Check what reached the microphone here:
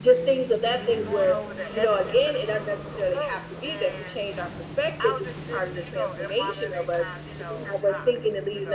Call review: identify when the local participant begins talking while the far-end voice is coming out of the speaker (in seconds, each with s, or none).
none